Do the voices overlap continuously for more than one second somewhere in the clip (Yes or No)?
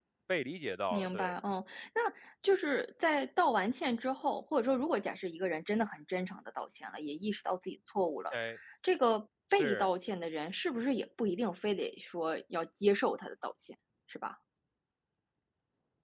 No